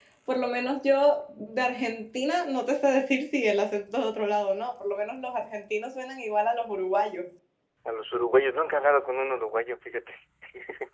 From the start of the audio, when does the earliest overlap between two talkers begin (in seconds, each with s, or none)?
none